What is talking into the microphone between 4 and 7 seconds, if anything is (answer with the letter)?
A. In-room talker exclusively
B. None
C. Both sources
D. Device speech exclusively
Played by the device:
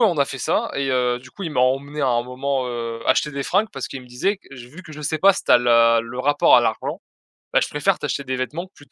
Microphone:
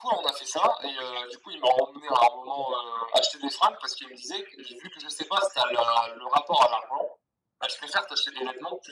D